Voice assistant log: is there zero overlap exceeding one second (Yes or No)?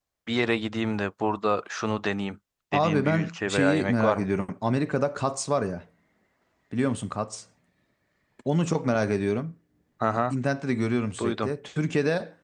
No